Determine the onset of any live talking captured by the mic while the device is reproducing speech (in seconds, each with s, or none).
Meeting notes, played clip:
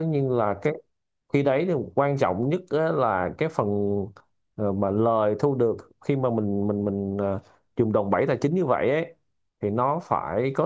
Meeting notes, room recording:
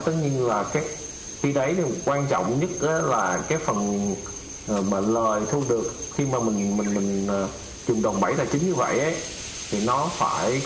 none